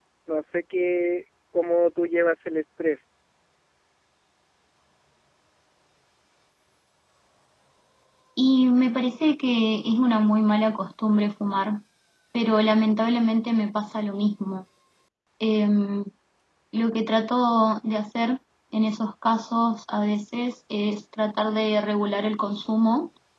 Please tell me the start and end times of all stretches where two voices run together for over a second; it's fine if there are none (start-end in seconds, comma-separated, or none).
none